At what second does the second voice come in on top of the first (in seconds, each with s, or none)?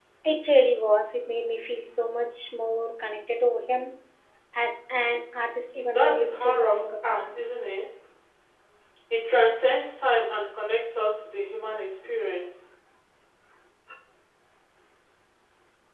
5.9 s